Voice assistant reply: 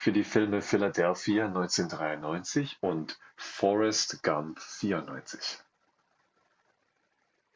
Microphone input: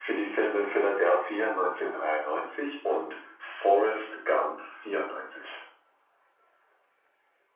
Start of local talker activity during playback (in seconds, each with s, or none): none